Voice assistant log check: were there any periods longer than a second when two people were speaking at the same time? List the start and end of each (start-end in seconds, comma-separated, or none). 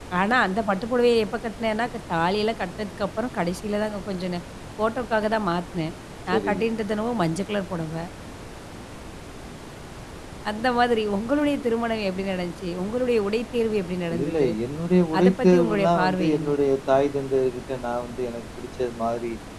15.2-16.5